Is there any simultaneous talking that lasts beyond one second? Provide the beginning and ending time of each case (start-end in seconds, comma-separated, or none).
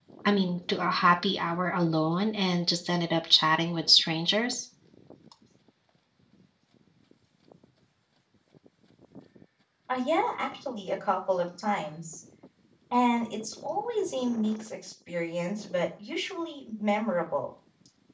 none